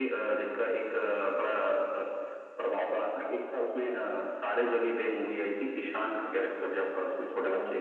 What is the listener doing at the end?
taking over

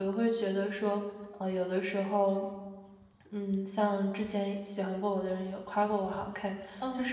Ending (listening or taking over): listening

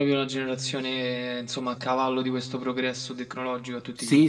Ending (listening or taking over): taking over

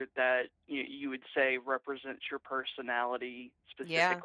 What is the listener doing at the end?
taking over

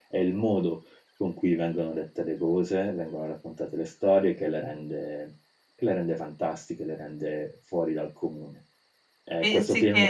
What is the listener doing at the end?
listening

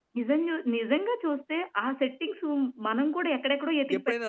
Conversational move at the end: taking over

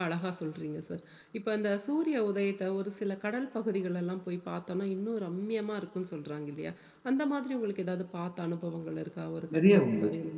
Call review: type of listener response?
taking over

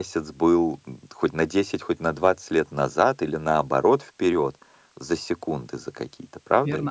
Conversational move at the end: taking over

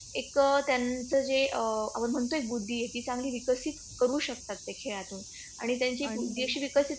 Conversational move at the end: listening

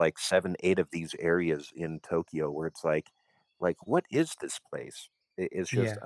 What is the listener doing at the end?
listening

